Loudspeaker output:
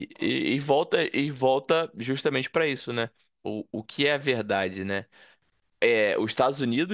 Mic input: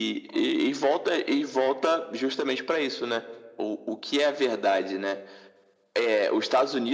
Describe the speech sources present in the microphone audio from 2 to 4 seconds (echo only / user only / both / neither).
echo only